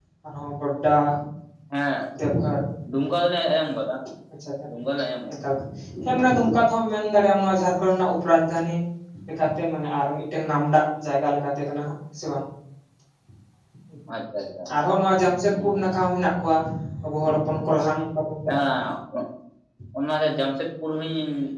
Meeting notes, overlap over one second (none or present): none